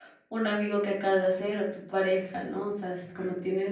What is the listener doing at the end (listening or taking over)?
listening